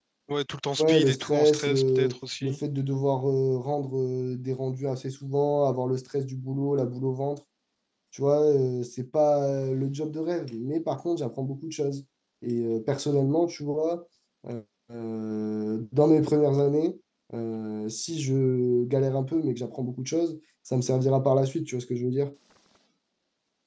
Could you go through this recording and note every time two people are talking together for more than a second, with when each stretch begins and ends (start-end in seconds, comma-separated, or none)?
0.8-2.6